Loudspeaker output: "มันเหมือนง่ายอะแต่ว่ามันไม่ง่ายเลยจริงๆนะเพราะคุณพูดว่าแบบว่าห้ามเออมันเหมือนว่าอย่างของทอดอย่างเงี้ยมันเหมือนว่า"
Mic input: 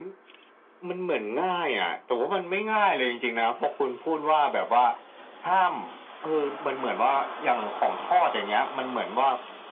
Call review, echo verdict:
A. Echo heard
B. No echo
A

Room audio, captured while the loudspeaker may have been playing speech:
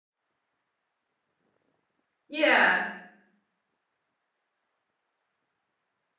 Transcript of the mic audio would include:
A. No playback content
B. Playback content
A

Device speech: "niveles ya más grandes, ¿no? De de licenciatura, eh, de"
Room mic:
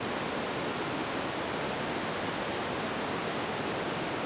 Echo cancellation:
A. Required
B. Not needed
B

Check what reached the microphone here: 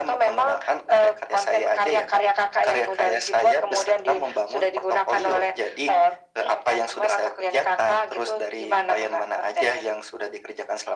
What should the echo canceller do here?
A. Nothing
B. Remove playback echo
B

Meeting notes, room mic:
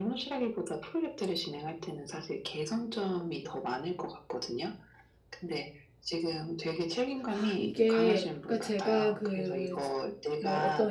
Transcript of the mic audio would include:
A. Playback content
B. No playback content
A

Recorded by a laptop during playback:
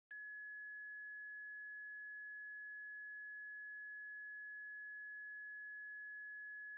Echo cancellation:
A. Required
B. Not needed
B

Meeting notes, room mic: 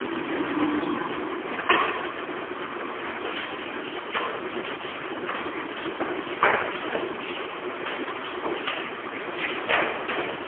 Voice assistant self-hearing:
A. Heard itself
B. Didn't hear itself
B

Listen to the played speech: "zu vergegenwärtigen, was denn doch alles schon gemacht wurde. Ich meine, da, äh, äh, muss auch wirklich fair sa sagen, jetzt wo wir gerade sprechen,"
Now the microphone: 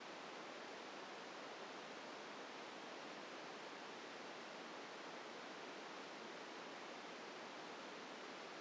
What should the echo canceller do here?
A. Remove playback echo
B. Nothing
B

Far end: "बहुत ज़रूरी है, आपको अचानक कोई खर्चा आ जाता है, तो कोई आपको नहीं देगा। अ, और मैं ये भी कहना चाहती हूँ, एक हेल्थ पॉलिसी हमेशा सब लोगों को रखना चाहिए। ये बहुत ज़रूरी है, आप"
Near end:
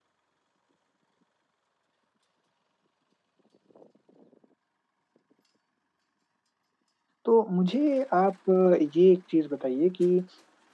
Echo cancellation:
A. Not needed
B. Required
A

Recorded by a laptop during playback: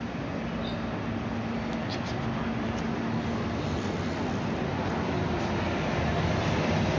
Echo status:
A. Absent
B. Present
A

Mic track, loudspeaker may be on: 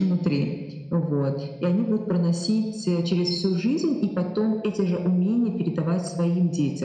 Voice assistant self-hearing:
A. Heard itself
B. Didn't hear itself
A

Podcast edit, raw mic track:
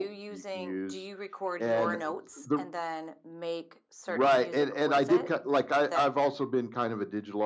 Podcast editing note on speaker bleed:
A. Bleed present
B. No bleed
A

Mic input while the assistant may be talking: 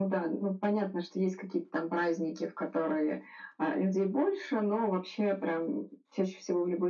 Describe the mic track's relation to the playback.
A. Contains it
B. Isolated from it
A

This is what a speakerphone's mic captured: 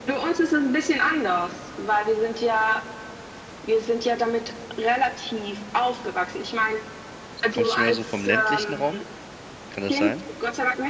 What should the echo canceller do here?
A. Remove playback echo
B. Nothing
A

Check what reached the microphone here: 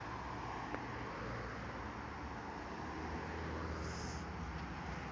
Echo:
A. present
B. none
B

